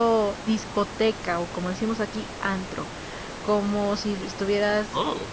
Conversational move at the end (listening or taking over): taking over